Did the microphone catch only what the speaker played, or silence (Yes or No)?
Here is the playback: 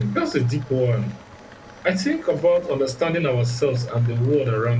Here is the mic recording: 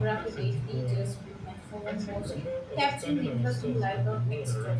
No